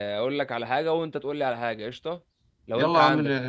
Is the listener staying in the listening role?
No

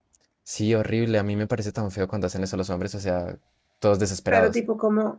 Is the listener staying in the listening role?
No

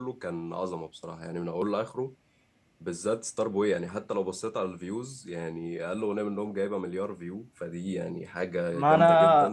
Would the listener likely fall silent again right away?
No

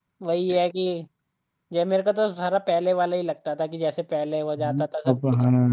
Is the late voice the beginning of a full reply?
Yes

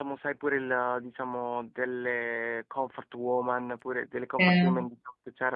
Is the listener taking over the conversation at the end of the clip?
No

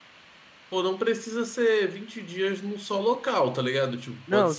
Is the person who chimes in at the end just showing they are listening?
No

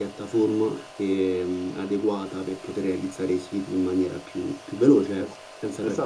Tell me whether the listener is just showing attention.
No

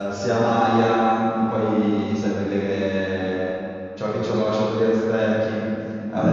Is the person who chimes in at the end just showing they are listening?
Yes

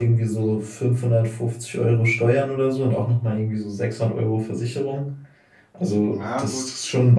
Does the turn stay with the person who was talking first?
Yes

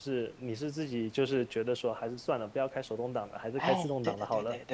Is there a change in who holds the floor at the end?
Yes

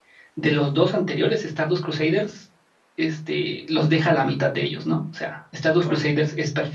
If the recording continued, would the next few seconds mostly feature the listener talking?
No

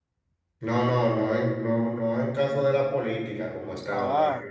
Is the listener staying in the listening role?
Yes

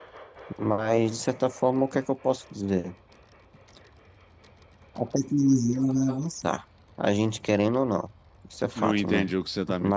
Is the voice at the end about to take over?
Yes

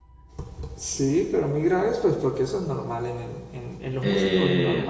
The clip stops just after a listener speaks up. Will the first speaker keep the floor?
No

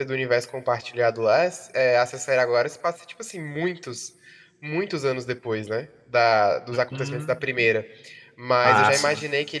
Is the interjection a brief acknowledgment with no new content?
Yes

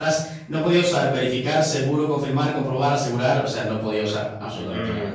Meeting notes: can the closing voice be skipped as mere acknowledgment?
No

